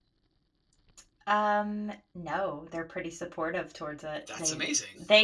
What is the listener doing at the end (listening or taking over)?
listening